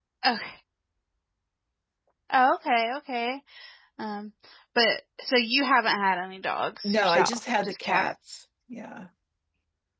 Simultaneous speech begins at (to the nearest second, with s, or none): 7 s